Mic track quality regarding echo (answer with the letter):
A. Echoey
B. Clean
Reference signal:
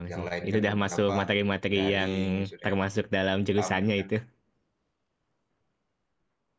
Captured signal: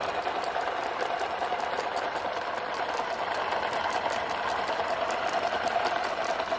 B